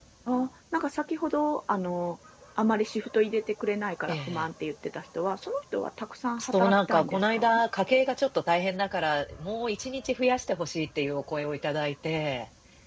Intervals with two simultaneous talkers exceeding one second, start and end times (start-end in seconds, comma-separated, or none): 6.4-7.6